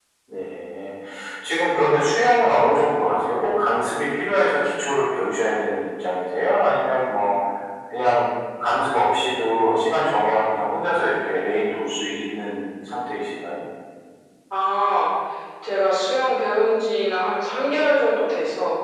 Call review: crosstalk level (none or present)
none